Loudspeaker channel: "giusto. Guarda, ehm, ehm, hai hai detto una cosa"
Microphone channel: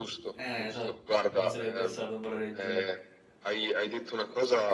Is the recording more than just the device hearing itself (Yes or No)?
Yes